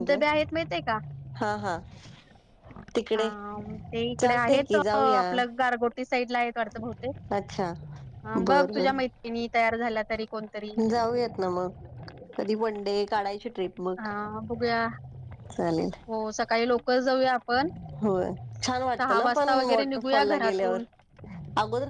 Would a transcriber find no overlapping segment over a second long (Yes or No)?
No